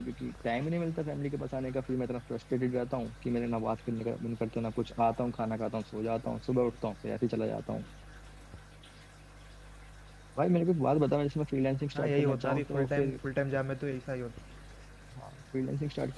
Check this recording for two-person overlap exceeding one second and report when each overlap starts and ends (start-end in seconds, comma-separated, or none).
11.9-13.2